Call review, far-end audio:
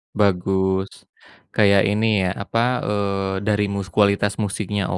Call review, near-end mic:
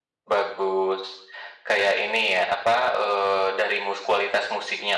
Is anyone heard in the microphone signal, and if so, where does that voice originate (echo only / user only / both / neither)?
echo only